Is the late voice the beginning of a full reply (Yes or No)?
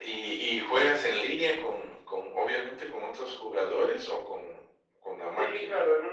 Yes